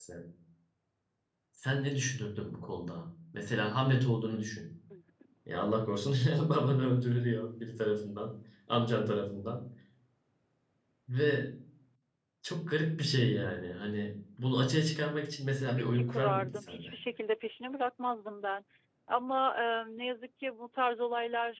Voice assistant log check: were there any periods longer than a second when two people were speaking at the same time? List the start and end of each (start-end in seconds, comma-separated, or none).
15.7-16.9